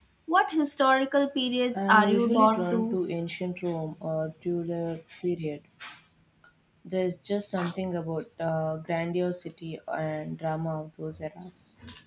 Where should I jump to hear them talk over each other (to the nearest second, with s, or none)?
2 s